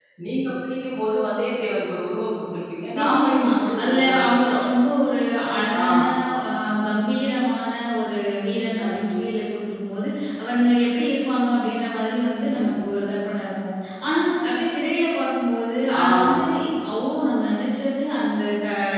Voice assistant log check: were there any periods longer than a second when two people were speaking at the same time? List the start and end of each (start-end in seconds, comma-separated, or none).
3.0-4.7